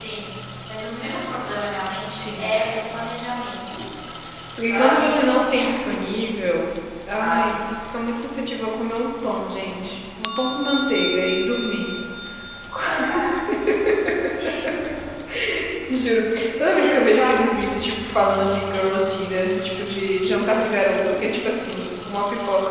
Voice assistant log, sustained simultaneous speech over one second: present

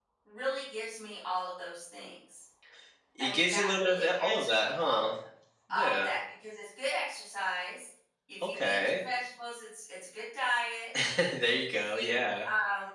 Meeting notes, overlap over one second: present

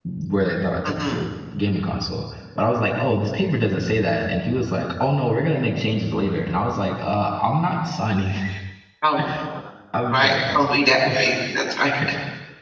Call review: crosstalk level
present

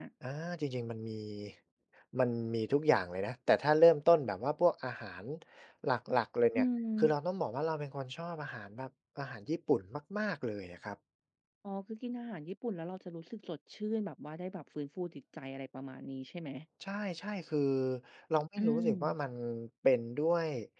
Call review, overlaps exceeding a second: none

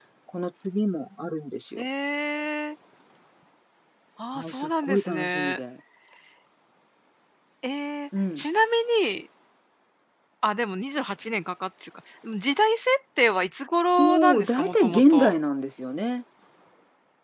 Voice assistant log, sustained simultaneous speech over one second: present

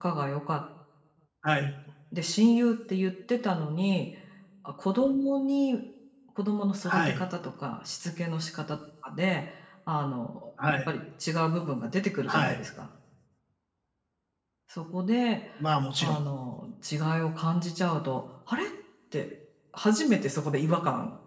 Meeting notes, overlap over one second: none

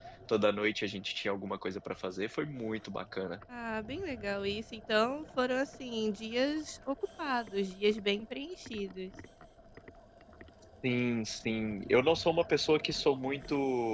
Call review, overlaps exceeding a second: none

